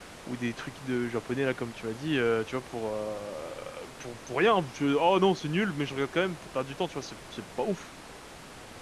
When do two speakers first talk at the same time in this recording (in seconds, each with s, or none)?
none